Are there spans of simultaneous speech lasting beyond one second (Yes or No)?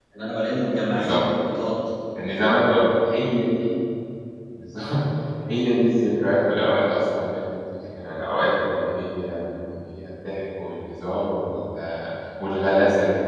No